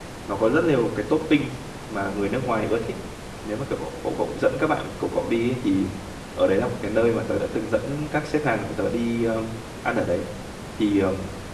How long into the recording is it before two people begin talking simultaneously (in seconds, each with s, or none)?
none